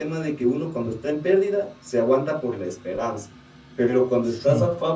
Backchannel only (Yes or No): Yes